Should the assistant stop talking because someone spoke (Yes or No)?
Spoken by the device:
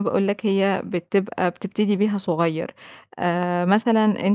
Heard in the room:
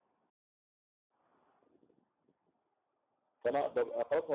Yes